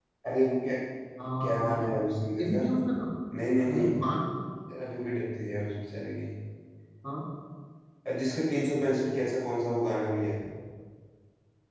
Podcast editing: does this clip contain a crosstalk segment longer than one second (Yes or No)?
No